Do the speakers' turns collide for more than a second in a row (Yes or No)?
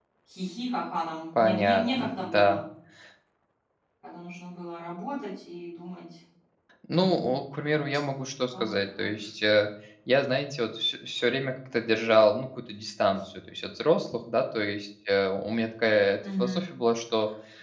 Yes